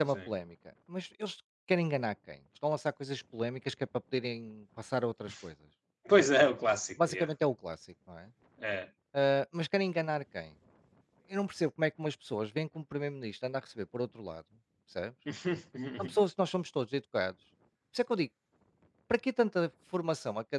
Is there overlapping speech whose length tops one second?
No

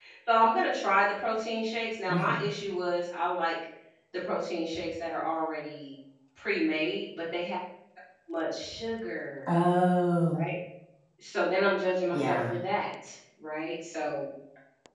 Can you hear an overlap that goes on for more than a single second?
No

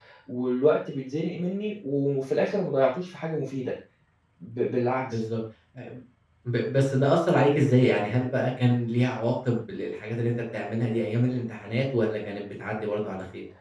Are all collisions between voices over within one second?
Yes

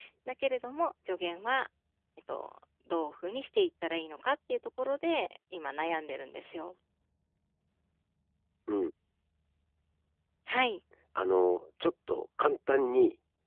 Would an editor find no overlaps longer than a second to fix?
Yes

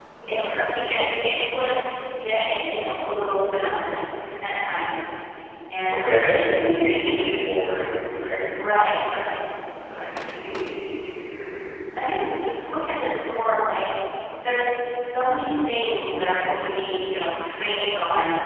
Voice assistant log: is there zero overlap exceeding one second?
No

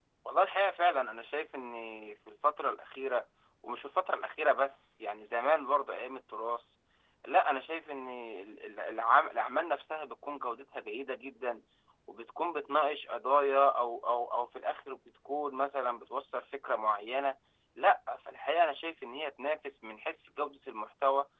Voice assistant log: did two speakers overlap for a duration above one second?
No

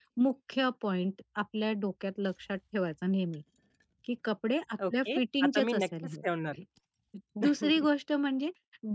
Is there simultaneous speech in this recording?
Yes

